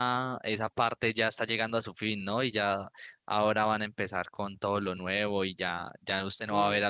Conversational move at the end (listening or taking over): listening